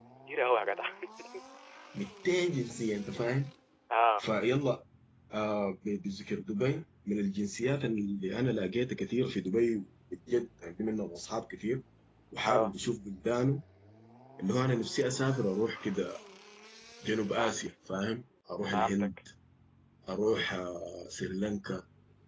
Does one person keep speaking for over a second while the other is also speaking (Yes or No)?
No